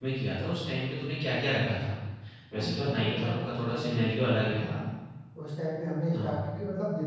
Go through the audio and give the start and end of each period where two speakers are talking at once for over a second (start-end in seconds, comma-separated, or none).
2.6-4.0